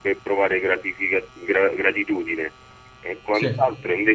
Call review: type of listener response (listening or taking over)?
listening